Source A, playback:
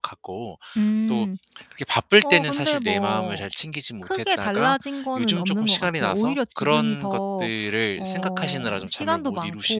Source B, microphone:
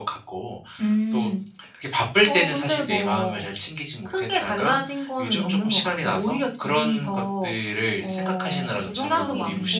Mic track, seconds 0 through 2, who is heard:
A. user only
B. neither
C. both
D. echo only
D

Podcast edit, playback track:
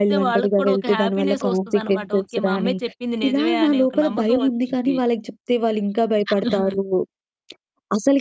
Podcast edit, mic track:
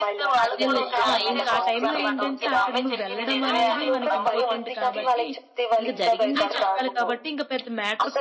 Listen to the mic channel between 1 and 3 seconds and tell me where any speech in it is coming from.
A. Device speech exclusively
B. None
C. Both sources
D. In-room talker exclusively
C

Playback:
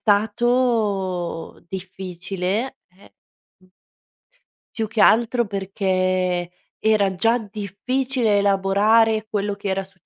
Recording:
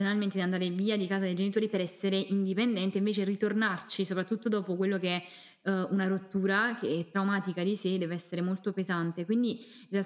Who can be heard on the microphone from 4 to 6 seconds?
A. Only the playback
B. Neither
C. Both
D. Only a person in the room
D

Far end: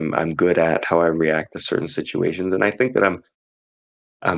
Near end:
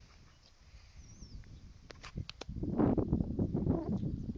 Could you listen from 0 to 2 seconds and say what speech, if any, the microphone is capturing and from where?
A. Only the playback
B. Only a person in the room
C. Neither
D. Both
C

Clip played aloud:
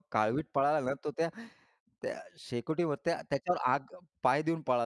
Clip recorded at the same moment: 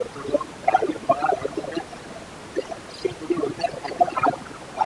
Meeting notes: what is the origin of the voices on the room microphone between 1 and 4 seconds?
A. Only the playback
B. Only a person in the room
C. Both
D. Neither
A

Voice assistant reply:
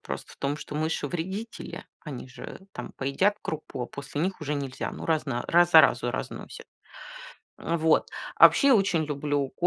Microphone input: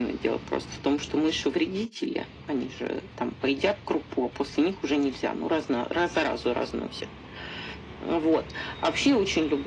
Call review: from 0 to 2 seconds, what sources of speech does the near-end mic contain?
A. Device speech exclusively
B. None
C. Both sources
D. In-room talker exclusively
A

